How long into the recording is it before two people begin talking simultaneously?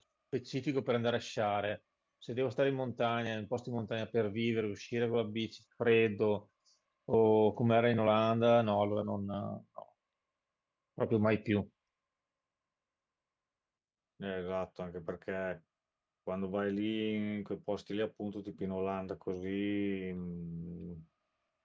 none

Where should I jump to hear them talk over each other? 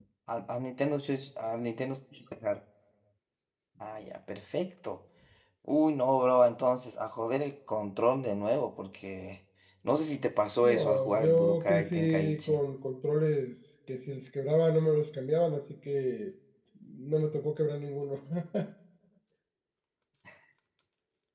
11 s

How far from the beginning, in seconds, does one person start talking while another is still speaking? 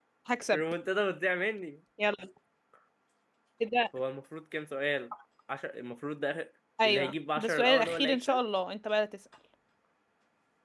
7 s

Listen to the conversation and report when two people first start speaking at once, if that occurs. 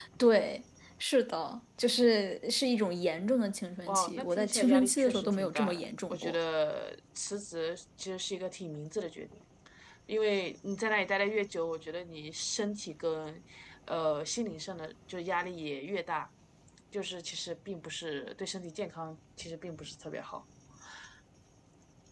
4 s

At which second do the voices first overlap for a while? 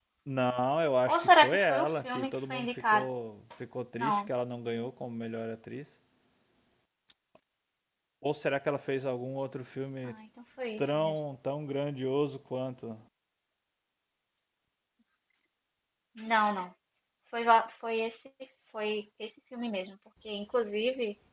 1 s

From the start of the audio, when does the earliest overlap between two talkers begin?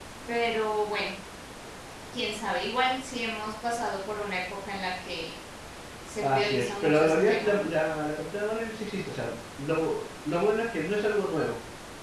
6 s

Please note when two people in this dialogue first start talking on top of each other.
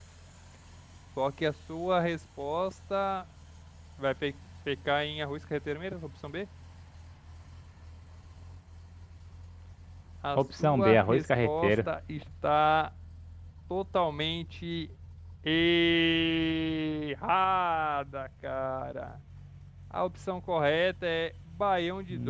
10 s

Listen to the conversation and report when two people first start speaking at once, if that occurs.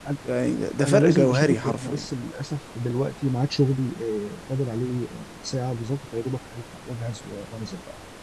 1 s

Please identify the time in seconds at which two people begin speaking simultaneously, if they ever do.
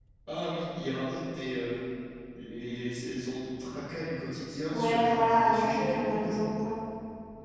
5 s

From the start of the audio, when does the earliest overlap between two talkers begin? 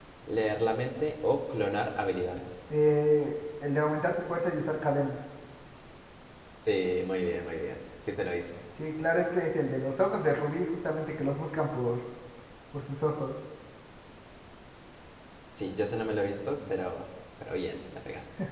none

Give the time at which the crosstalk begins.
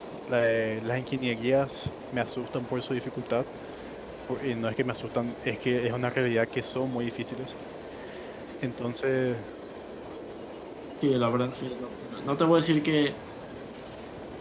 none

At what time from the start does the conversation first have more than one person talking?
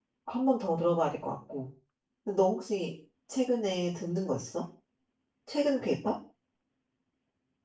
none

